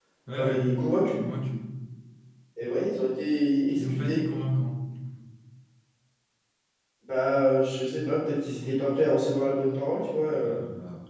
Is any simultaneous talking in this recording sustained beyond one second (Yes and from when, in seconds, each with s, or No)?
No